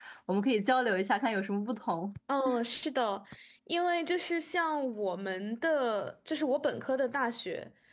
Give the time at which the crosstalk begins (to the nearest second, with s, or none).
none